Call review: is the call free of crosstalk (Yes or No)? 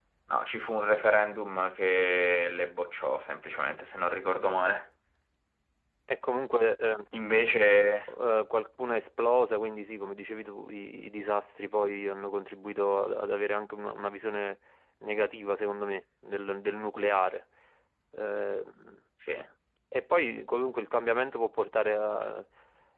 Yes